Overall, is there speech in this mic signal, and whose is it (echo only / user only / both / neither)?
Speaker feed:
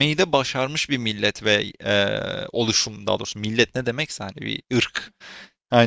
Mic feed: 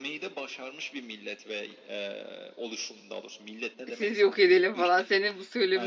both